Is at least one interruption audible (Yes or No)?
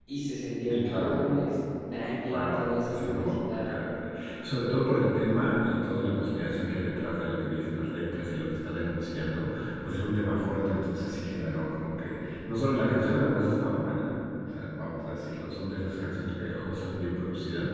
Yes